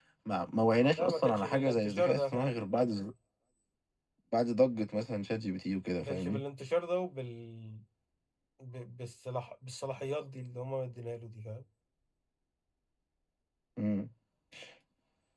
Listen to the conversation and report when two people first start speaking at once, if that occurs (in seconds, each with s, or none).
1.0 s